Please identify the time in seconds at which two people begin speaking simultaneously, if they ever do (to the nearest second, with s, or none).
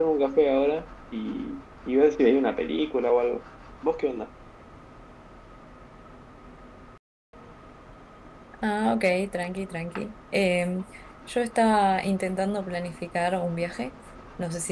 none